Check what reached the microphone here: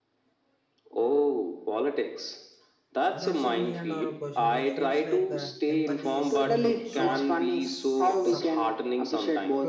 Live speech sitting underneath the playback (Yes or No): Yes